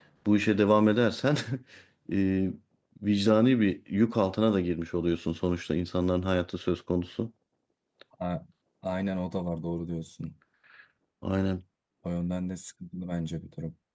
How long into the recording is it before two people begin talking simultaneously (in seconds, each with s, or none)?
none